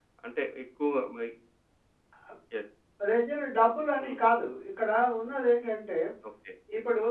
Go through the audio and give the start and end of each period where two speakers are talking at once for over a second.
none

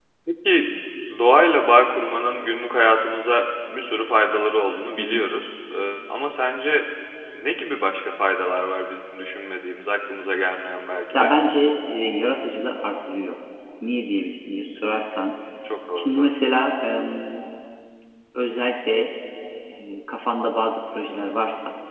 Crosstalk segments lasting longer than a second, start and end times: none

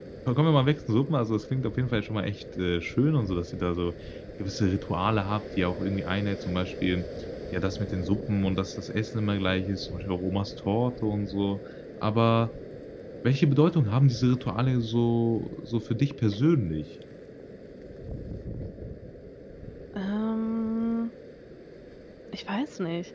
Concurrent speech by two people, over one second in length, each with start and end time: none

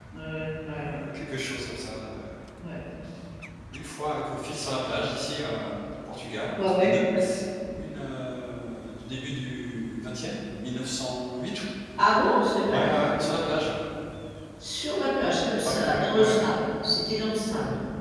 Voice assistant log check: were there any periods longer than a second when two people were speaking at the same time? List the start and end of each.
14.8-16.5

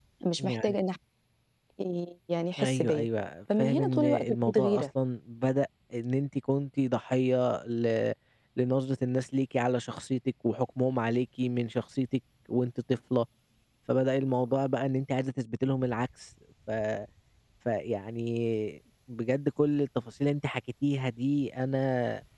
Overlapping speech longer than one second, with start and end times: 3.6-4.8

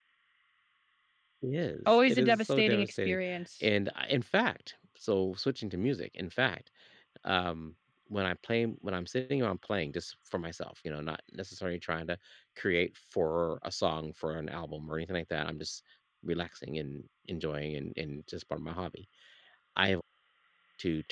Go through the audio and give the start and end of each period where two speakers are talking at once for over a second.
1.9-3.2

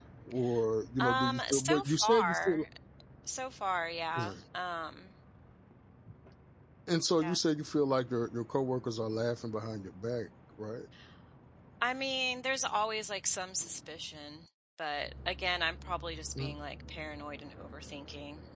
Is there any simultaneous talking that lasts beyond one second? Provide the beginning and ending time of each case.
1.0-2.6

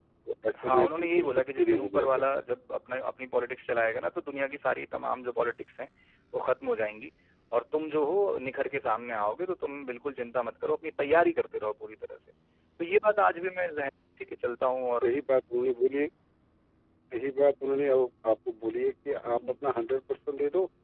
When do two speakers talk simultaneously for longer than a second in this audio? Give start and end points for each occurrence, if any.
0.6-2.2

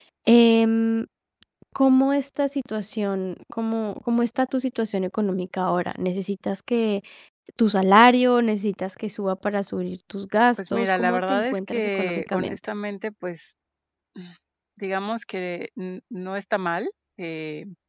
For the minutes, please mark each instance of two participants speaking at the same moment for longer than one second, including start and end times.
10.6-12.6

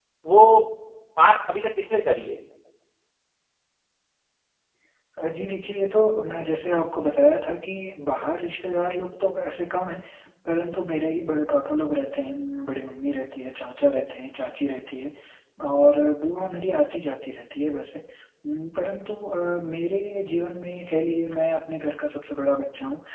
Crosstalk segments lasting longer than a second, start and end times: none

